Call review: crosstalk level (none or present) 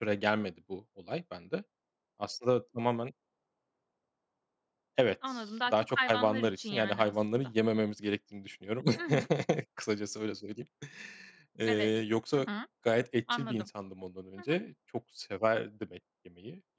present